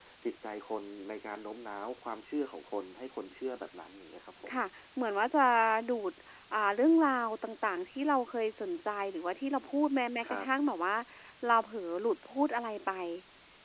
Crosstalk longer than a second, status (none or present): none